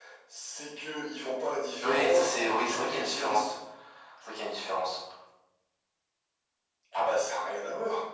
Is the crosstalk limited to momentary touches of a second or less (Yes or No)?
No